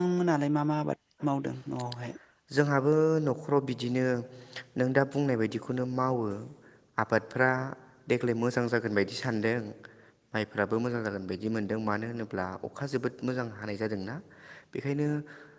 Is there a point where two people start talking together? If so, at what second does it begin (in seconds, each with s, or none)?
none